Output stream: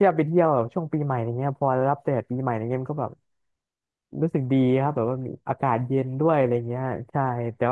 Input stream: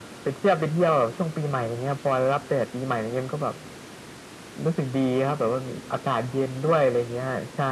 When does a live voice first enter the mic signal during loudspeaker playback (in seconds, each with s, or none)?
none